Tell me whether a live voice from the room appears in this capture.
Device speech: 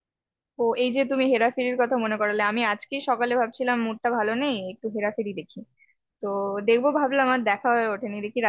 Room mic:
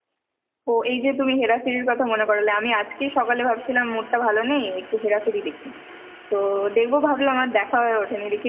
No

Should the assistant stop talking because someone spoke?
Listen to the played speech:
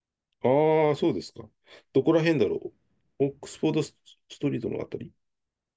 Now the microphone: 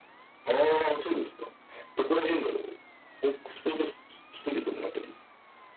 No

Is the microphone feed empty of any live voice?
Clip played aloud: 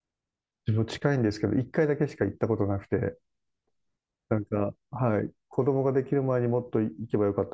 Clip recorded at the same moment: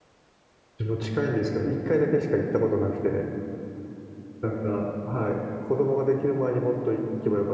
Yes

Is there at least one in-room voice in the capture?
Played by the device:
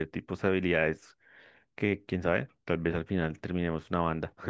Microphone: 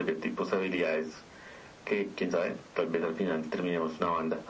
No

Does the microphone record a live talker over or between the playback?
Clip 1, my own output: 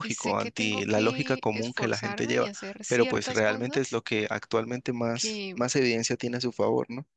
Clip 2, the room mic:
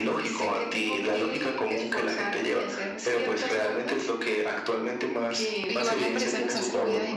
Yes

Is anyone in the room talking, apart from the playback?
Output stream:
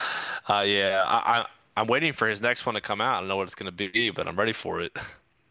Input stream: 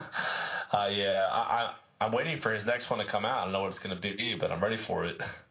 No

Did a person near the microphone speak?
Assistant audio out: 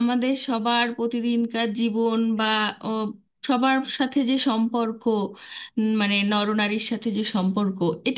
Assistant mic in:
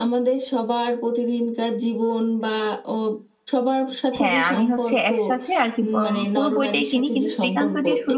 Yes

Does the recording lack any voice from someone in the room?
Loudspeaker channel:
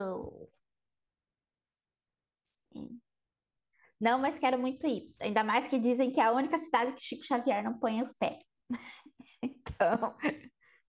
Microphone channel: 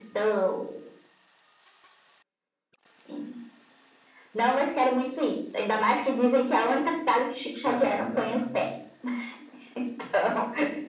No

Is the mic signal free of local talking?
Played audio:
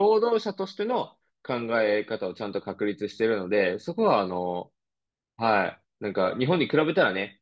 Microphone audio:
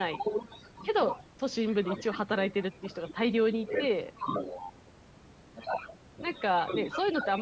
No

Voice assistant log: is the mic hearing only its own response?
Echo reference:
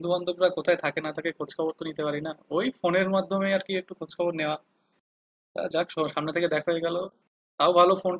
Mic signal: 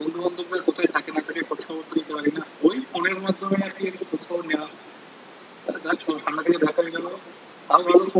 Yes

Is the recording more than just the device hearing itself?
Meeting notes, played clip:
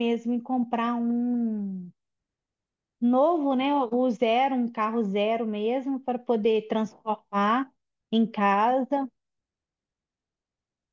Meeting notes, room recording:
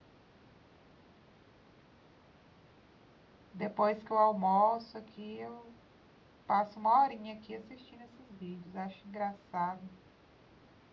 Yes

